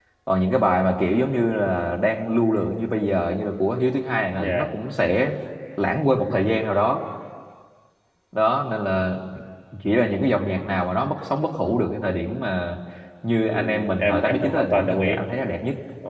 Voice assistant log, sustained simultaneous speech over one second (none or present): present